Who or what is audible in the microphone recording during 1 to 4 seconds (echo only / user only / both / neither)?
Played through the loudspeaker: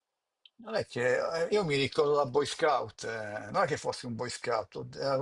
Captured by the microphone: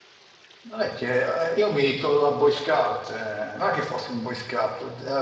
echo only